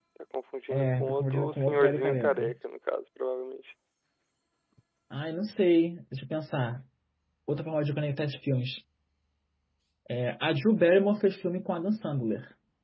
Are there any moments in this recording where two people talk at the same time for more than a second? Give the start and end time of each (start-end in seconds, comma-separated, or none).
0.7-2.5